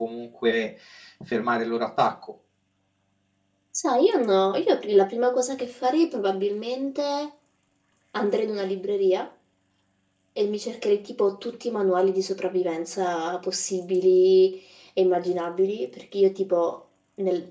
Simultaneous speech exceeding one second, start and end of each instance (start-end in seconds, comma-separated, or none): none